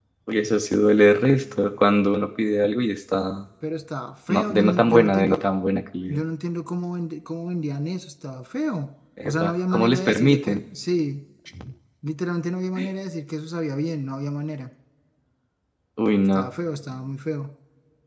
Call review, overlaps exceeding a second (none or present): present